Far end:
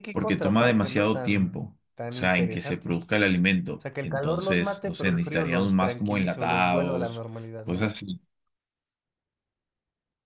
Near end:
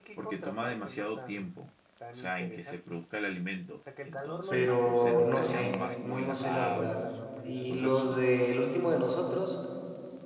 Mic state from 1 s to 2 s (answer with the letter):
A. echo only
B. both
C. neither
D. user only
A